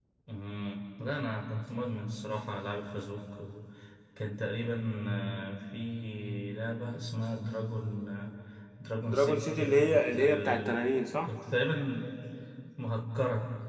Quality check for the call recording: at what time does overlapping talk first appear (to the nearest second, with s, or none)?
9 s